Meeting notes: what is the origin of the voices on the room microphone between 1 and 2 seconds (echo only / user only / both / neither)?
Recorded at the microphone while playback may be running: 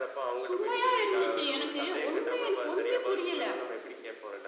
echo only